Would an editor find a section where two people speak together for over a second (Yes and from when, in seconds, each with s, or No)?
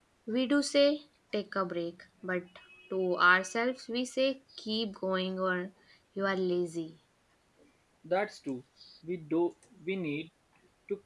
No